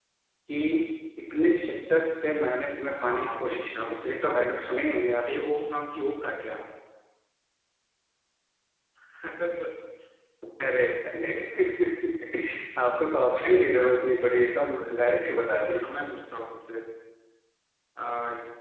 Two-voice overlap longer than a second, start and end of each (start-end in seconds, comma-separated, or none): 3.0-4.8, 13.5-14.9